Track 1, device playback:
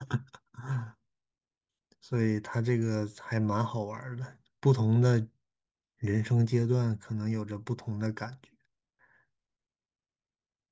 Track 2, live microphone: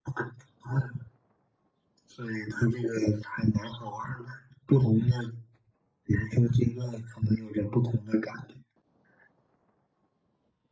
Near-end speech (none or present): none